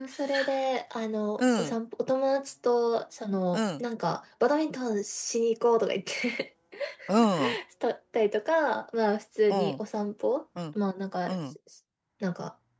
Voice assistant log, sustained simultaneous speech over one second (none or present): none